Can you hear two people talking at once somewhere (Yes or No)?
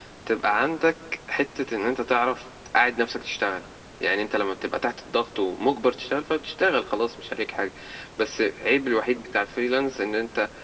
No